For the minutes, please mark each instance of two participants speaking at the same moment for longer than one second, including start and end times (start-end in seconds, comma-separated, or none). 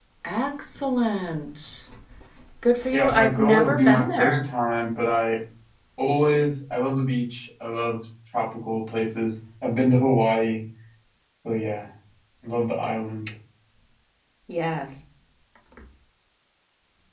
2.9-4.5